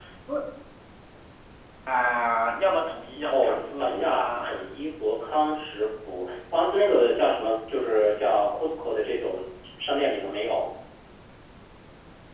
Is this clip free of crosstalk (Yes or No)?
No